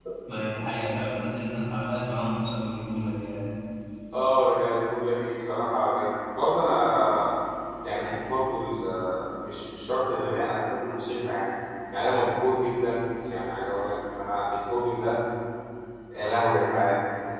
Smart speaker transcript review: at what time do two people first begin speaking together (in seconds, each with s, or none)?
none